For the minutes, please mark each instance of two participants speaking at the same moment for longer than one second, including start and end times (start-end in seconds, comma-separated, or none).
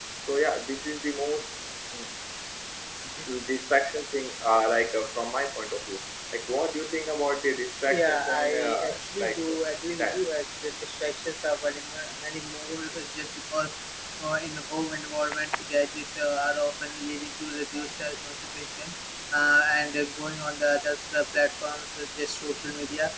7.9-9.6